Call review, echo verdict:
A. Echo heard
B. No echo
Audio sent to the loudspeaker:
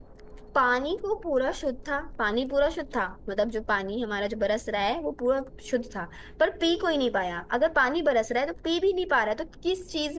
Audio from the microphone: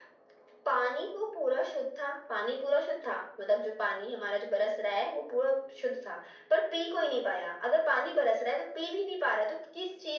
A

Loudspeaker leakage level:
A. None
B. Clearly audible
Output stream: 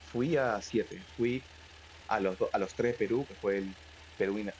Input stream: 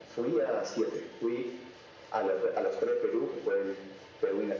B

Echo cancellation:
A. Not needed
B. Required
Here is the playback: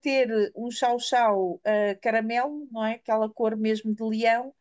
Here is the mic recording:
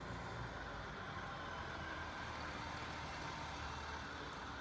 A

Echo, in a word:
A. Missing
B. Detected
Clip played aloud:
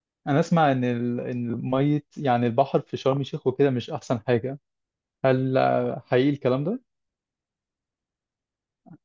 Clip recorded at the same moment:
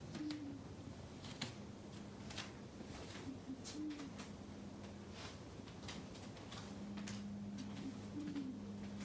A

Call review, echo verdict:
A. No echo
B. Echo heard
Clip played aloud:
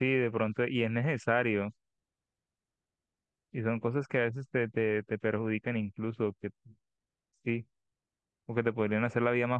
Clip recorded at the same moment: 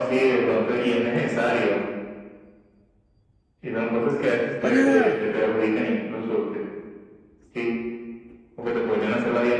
B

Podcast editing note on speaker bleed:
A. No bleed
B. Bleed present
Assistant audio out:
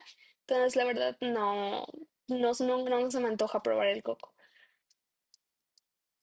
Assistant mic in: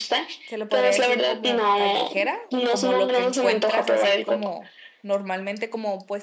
B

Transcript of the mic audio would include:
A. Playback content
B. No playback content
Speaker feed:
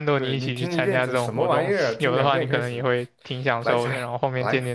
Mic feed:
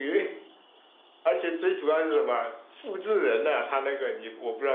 B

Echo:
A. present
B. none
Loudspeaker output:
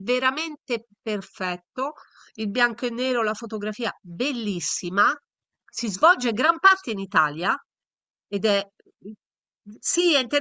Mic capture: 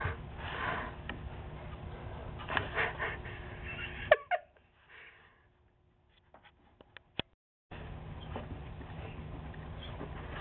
B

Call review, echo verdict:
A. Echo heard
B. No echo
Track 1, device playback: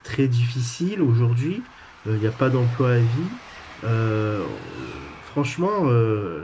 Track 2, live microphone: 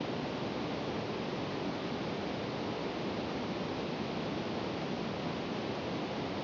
B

